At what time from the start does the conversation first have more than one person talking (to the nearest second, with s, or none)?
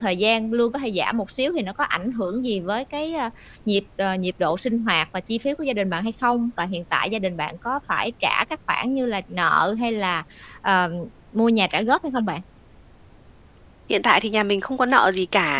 none